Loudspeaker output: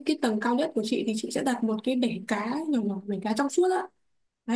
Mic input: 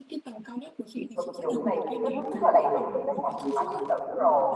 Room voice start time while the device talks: 1.1 s

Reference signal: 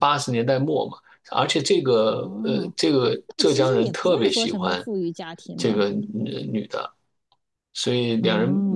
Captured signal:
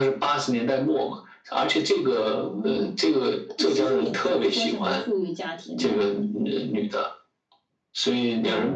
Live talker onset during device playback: none

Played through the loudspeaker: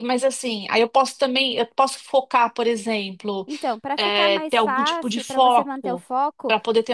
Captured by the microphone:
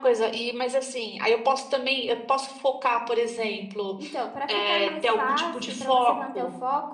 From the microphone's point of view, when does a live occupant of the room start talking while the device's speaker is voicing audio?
none

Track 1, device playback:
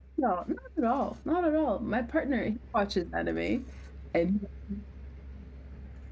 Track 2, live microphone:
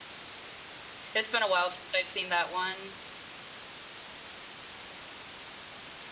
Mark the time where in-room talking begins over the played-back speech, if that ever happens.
1.1 s

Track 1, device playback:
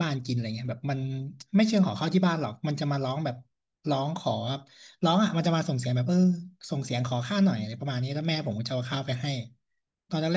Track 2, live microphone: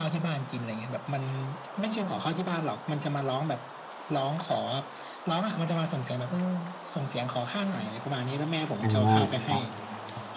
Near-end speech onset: 8.8 s

